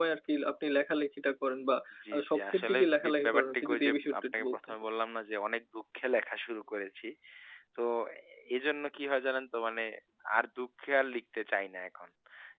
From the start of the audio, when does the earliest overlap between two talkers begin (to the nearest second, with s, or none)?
2 s